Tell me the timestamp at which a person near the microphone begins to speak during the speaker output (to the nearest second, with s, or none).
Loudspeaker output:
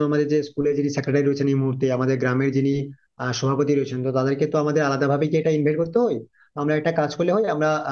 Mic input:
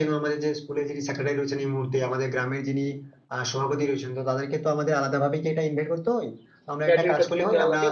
7 s